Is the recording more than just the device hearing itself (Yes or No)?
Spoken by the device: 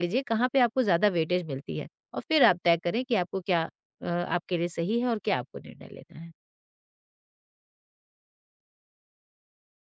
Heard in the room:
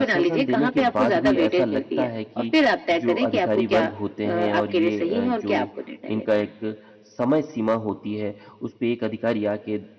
Yes